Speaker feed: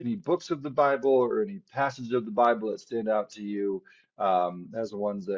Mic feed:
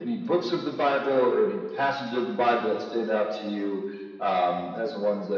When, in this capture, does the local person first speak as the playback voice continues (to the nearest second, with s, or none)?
none